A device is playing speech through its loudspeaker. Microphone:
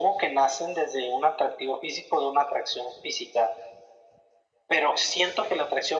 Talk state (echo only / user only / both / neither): echo only